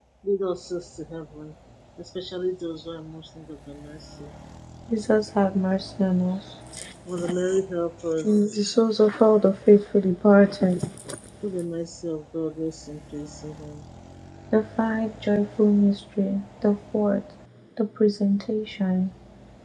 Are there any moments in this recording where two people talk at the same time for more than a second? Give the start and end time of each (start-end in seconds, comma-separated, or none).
none